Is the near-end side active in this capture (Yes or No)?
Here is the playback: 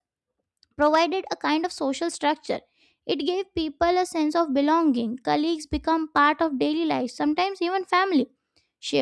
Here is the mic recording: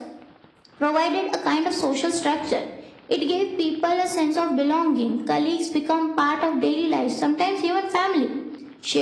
No